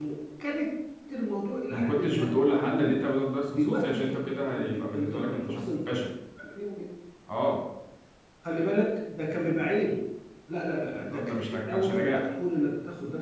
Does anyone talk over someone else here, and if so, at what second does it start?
1.7 s

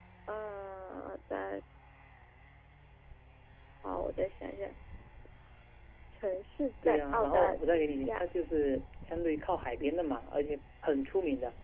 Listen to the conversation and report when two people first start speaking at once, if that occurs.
6.9 s

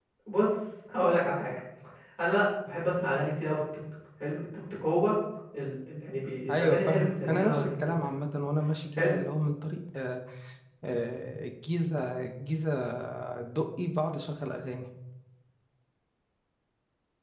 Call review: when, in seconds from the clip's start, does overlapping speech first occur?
6.5 s

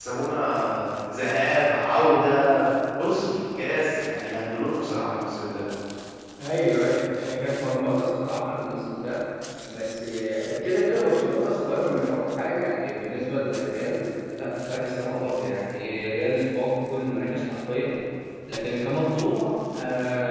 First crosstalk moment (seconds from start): none

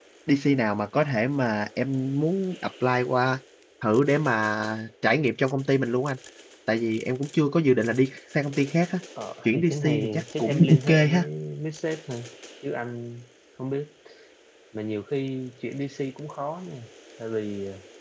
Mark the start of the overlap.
9.4 s

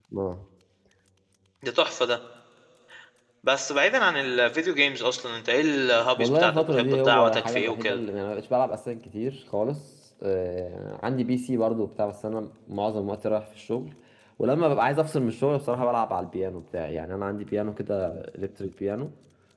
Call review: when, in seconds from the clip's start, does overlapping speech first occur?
6.2 s

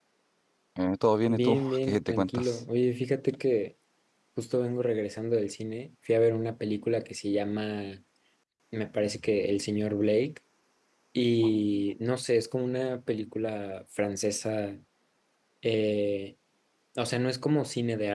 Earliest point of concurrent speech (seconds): 1.3 s

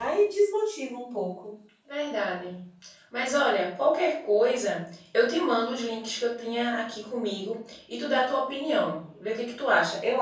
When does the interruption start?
none

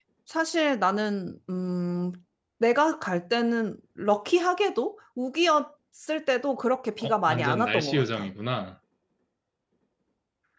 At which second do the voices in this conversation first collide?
7.0 s

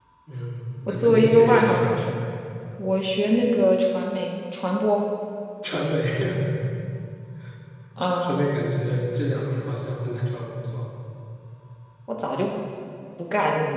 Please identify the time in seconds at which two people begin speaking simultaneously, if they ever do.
0.9 s

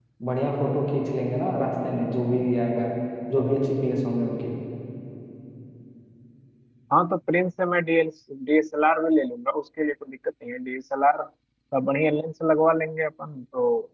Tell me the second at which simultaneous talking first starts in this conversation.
none

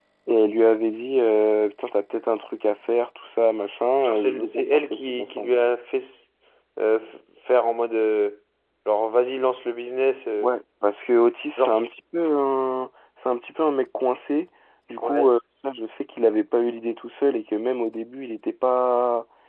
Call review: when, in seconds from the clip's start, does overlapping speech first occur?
4.0 s

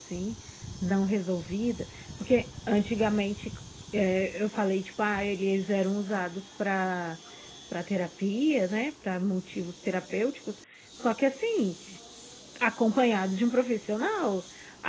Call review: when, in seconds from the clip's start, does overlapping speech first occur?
none

